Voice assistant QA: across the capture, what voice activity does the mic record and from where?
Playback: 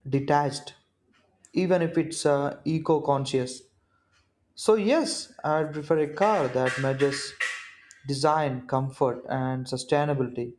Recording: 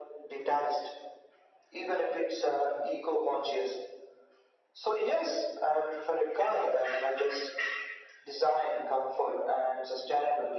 echo only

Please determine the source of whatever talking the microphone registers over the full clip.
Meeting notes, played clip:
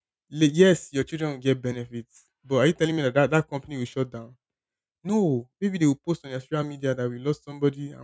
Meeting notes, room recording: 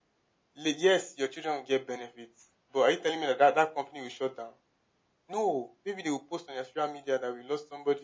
echo only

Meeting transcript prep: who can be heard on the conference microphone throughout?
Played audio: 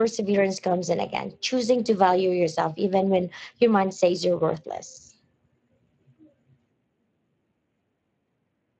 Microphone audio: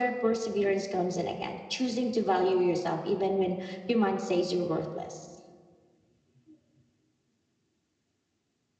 echo only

